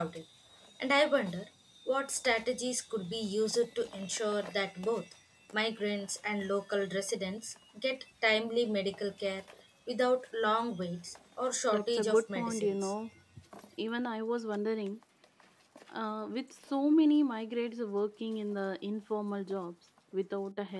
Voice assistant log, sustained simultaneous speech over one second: present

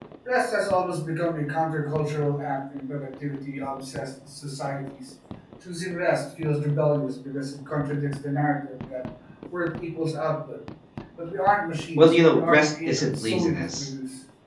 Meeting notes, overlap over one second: present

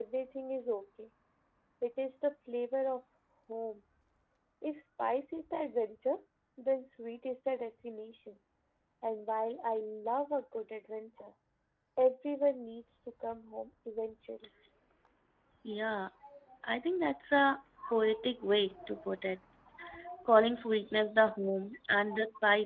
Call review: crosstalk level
none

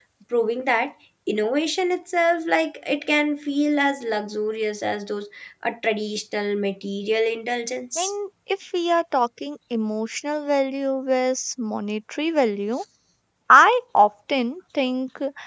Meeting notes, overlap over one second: none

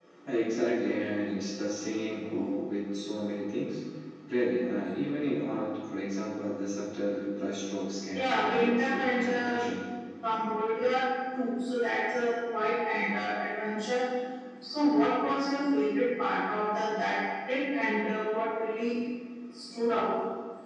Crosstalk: present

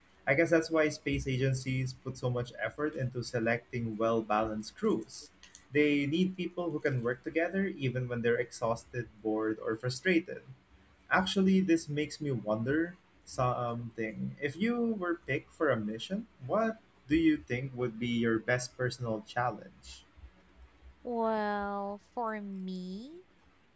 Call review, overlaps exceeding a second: none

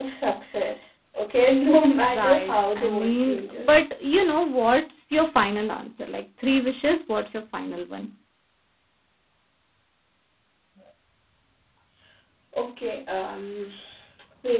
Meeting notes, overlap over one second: present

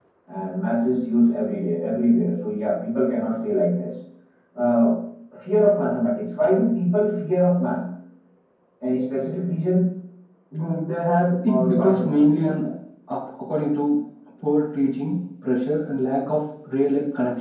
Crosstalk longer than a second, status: present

